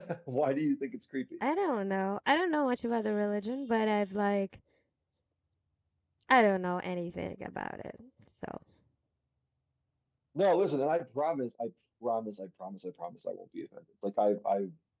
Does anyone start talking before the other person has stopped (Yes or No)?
No